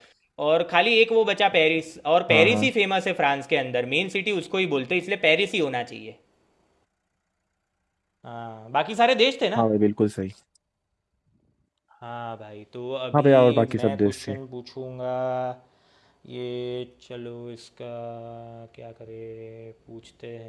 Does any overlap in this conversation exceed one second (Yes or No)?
Yes